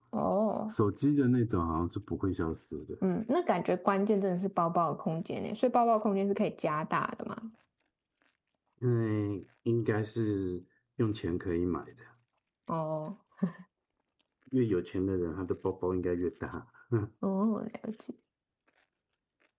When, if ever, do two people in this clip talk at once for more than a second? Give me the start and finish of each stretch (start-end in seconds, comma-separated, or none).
none